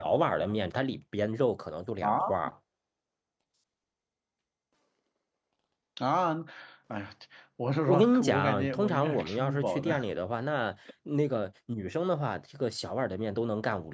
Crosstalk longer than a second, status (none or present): present